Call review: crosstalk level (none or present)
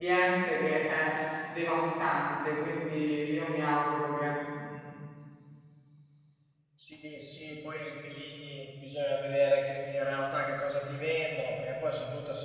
none